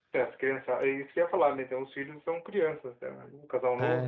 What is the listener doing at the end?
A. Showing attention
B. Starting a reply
B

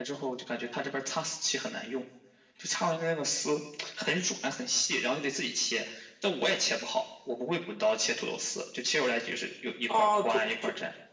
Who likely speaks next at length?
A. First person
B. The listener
B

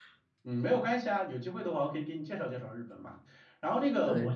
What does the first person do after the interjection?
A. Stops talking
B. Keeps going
B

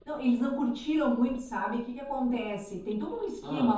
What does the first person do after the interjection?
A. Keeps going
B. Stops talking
A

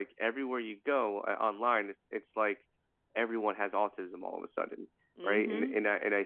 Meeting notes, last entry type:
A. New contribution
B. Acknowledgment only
B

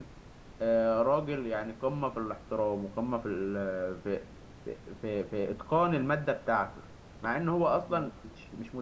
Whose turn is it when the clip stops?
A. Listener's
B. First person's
B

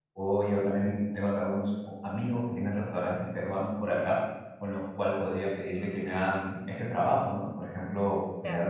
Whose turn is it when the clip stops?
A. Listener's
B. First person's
A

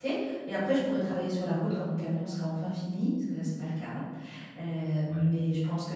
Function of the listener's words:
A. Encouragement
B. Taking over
A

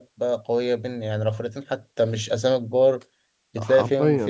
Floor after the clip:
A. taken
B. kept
A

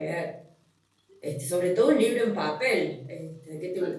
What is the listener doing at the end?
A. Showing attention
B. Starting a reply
A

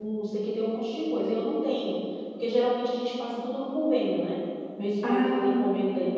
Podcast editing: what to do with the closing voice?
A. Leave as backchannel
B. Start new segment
A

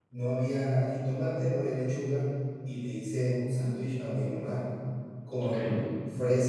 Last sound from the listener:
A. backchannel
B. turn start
A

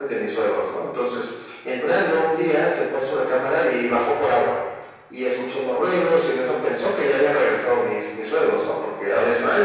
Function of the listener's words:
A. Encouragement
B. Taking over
A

